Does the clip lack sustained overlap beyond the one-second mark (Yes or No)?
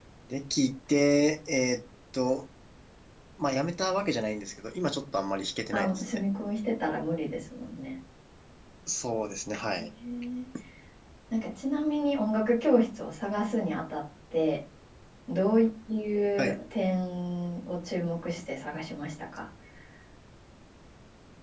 Yes